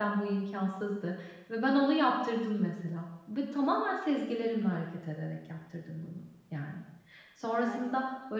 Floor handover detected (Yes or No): No